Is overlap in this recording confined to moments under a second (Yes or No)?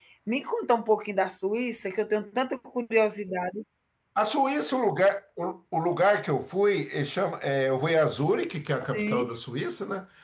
Yes